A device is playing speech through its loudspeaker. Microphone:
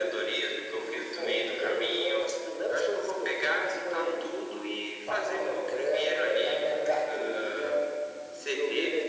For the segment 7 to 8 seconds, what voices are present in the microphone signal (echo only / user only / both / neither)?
echo only